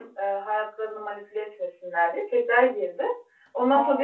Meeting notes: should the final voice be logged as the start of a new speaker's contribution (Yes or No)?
No